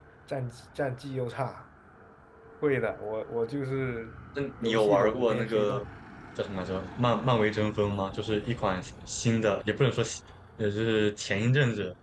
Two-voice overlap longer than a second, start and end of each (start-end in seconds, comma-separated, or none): 4.6-5.8